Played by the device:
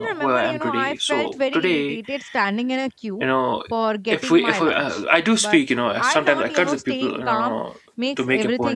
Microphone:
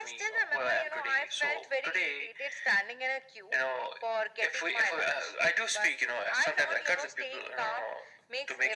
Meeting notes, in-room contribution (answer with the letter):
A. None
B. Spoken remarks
A